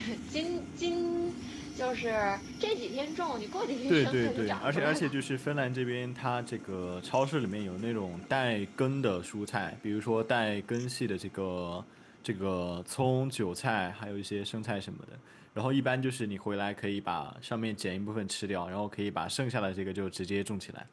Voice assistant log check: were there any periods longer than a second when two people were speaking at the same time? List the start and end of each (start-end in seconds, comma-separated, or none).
3.9-5.1